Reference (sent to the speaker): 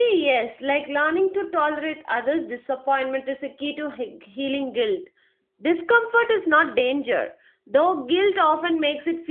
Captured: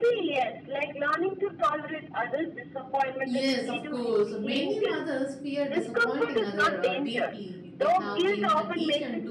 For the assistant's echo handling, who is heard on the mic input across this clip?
both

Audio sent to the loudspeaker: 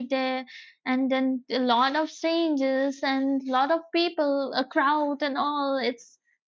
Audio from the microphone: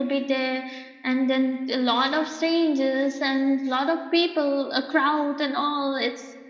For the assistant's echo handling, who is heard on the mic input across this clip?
echo only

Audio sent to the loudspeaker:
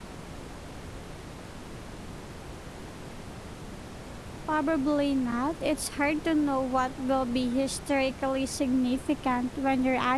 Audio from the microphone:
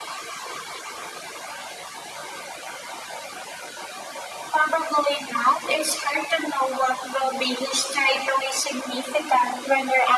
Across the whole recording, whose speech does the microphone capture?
echo only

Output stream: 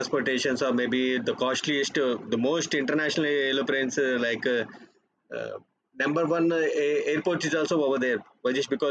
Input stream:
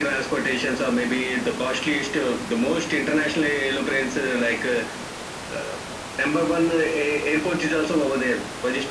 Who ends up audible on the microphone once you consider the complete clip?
echo only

